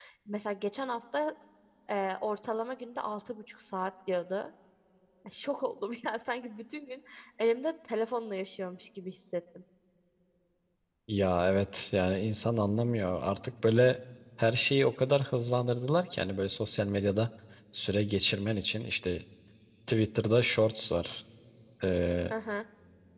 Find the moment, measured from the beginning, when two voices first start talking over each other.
none

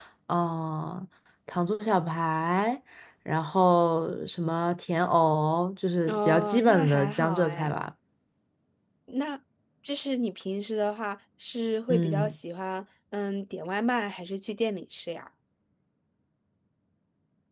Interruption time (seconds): 6 s

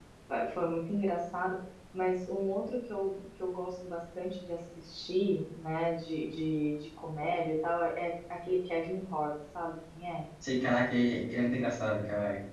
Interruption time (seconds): none

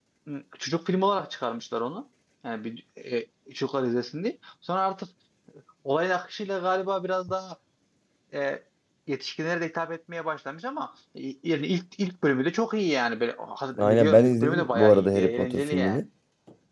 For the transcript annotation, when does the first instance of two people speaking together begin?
14 s

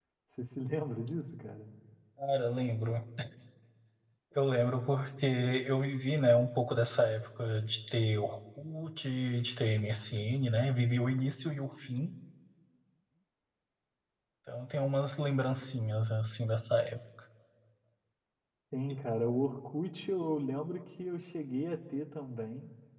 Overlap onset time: none

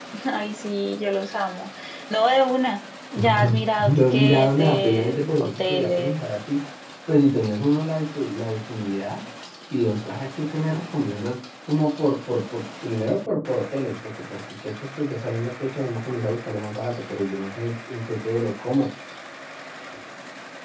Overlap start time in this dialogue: 3 s

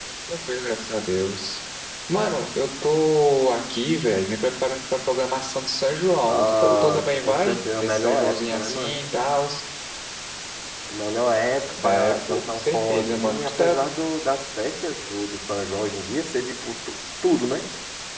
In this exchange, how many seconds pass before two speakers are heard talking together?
6 s

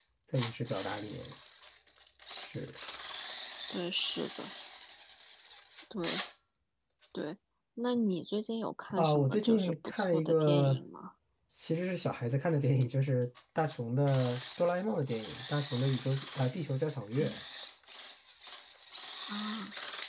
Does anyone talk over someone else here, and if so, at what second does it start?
9 s

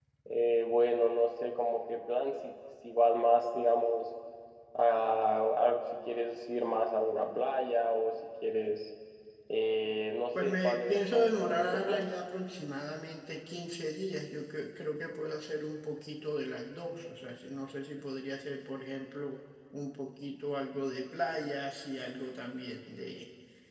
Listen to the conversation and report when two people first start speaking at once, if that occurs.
10 s

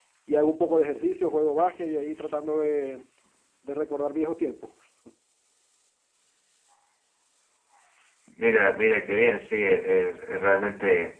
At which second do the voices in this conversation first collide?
none

